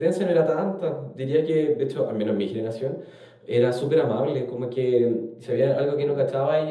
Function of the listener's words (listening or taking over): listening